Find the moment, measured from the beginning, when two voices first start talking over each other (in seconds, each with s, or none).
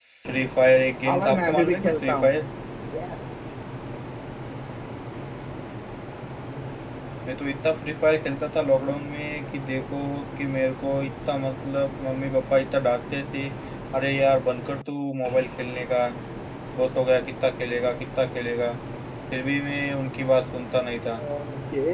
1.0 s